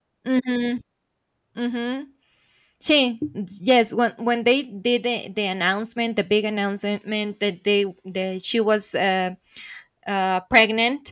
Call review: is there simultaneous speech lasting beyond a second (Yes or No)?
No